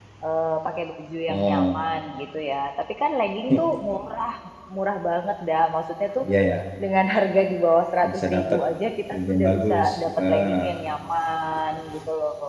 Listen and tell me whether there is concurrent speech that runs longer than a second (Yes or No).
Yes